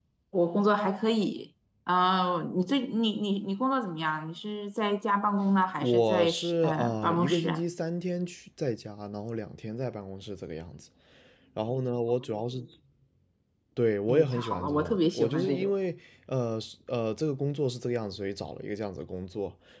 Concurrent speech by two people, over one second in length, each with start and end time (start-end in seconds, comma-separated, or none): 5.8-7.6, 14.1-15.7